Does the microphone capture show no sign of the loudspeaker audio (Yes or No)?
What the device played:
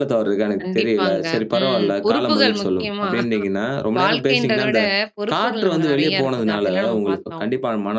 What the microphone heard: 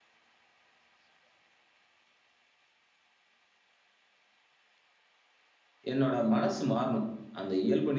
Yes